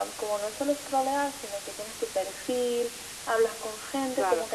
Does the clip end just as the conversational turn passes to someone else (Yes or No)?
No